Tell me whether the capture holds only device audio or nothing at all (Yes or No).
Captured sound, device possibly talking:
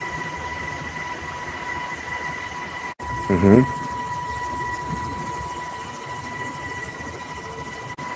No